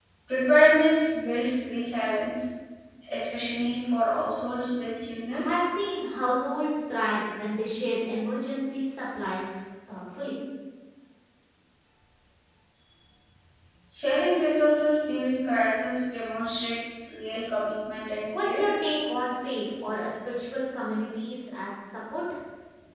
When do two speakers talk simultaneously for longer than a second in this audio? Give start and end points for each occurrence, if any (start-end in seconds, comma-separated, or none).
none